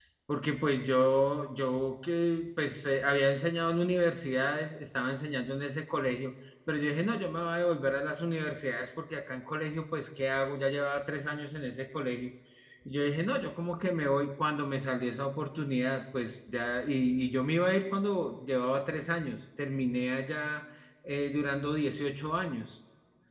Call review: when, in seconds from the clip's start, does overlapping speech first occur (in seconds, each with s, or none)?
none